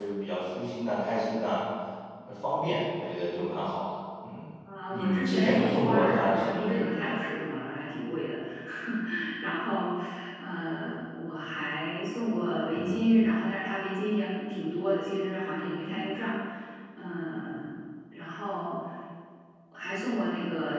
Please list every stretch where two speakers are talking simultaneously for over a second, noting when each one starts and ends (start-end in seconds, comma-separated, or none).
4.9-7.2